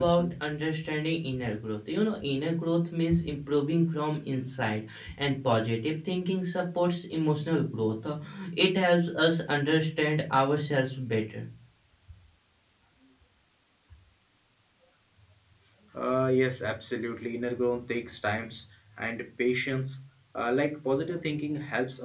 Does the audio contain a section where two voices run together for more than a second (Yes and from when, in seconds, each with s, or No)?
No